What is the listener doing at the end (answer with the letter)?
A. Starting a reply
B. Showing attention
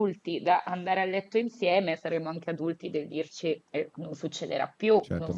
A